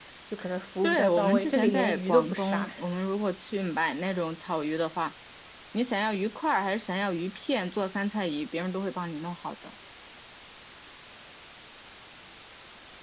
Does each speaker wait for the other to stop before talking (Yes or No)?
No